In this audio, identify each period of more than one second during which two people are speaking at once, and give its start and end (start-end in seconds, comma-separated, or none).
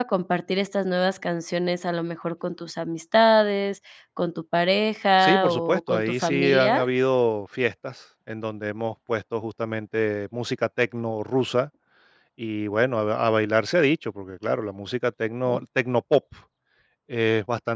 5.2-6.8